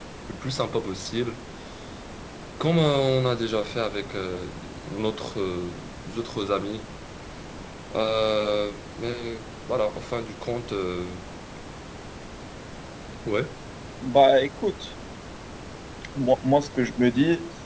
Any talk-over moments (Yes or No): No